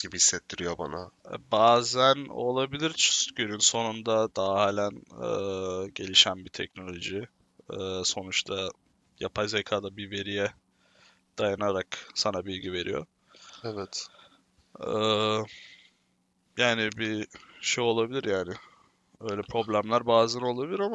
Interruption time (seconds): none

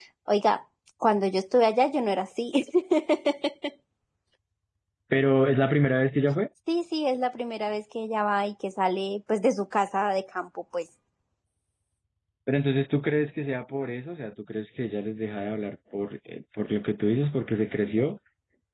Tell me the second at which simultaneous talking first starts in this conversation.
none

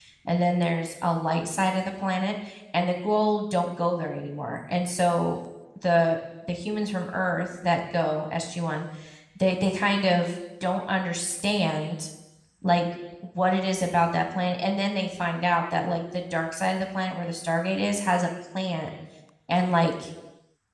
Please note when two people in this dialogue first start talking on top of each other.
none

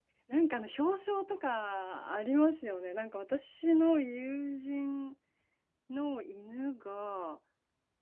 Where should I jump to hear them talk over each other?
none

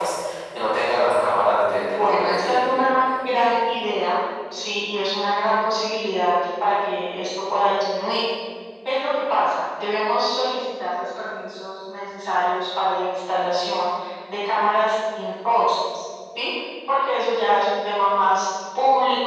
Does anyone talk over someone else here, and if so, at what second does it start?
1.8 s

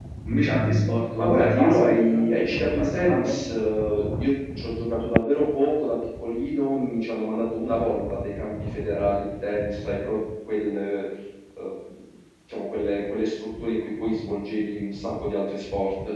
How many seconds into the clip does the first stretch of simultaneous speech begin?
1.2 s

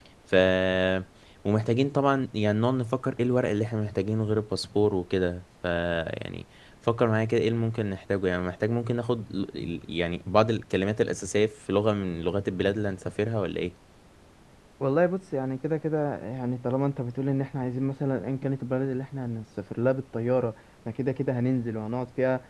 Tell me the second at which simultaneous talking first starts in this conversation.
none

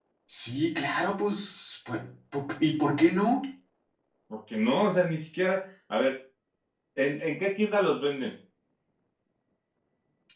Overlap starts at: none

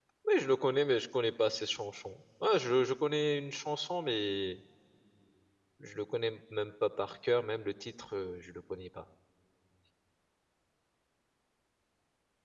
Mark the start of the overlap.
none

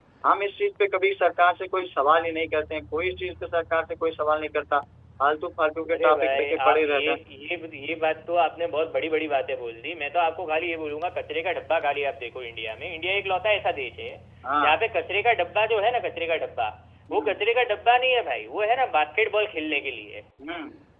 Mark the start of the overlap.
5.9 s

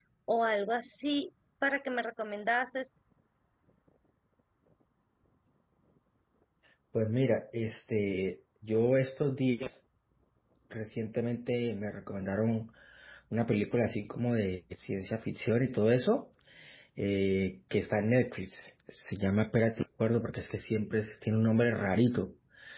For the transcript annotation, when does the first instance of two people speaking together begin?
none

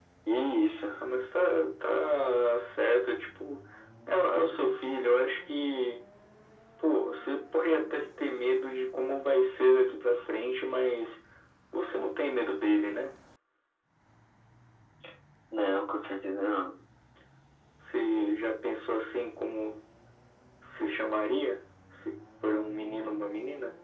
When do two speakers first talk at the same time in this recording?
none

